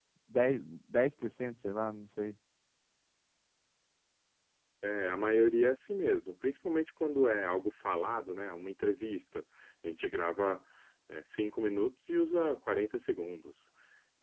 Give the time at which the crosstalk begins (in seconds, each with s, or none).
none